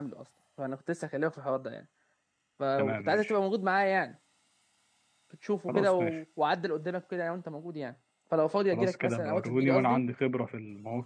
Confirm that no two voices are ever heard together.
No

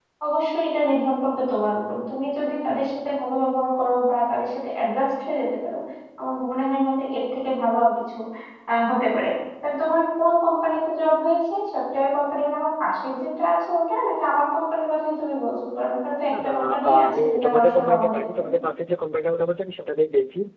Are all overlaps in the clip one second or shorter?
No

